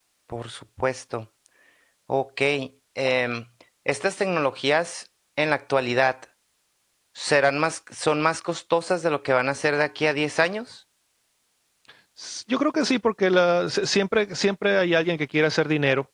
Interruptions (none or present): none